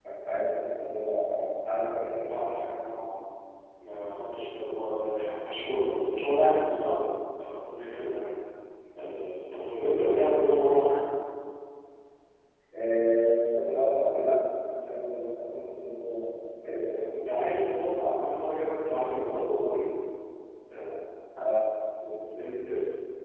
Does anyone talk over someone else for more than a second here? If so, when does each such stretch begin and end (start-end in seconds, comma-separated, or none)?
none